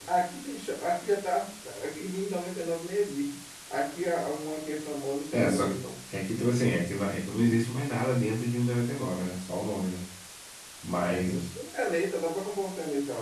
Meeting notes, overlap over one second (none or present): none